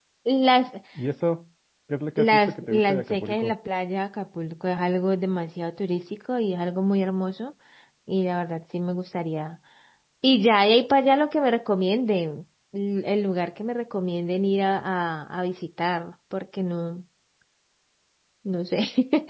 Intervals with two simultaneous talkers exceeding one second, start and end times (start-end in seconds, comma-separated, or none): 2.2-3.5